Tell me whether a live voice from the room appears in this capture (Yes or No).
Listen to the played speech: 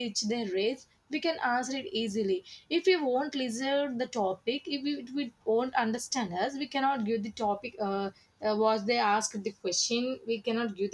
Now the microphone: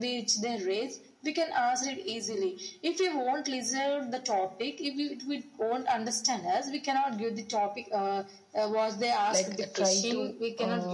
Yes